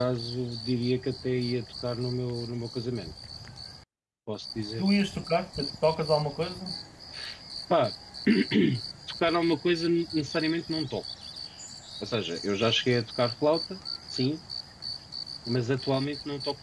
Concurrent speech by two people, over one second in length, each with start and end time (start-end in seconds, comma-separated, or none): none